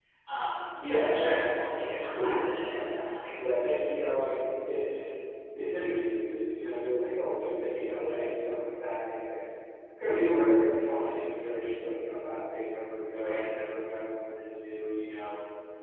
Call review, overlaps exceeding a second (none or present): present